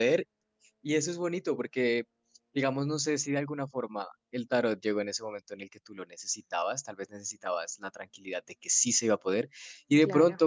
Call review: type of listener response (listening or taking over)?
listening